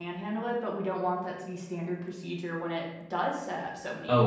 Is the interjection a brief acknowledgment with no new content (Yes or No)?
No